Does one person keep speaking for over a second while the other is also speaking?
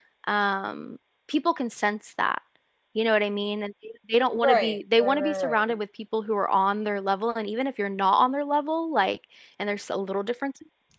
Yes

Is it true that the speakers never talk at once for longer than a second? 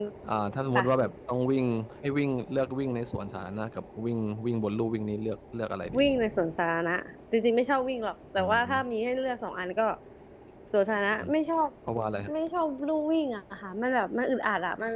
Yes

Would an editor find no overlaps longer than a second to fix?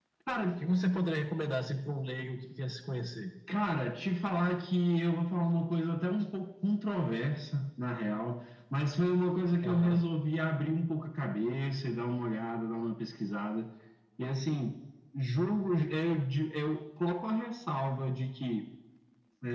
Yes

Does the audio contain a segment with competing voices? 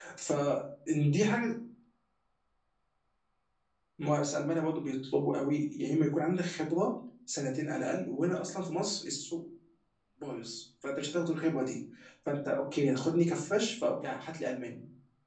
No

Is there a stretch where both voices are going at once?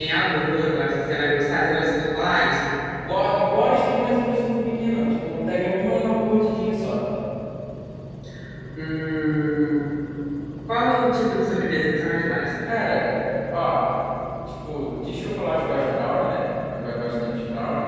No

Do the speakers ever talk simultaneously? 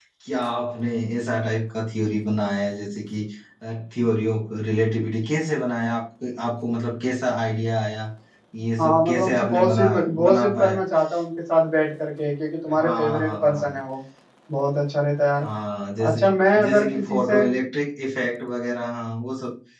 Yes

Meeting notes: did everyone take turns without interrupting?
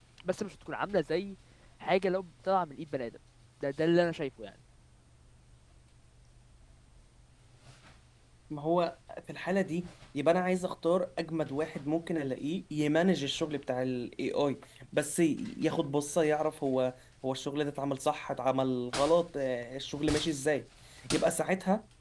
Yes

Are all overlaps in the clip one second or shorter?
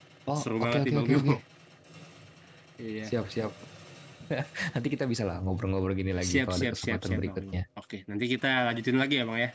No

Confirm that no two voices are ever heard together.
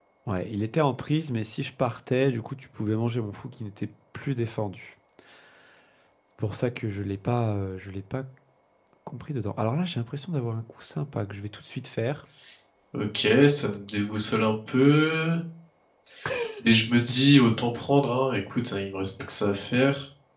Yes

